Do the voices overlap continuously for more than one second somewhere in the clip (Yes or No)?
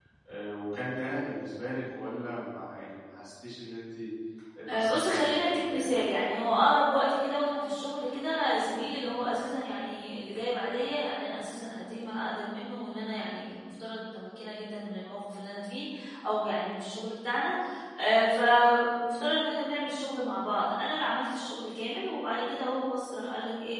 Yes